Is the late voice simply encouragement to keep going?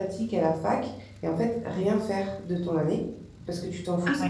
Yes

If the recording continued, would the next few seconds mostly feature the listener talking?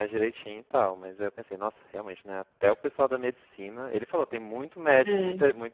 No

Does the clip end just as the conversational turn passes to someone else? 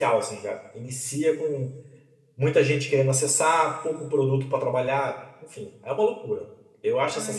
Yes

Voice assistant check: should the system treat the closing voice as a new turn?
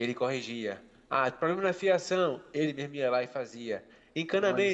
No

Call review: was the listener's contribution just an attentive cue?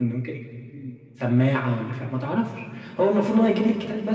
Yes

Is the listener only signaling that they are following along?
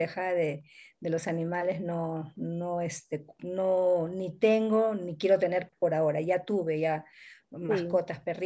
Yes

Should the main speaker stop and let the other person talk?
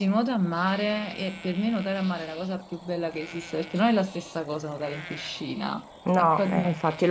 Yes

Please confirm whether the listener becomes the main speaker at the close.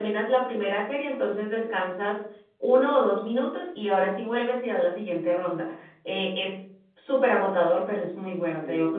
Yes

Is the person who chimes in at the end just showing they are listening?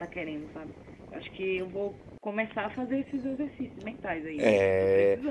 No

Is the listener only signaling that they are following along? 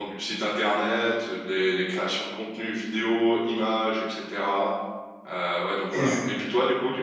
Yes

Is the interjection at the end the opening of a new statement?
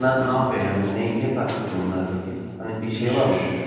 Yes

